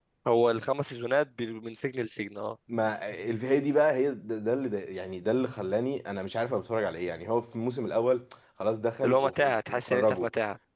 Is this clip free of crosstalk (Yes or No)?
No